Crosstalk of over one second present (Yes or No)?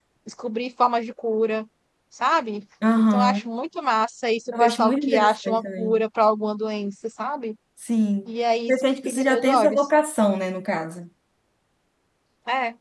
Yes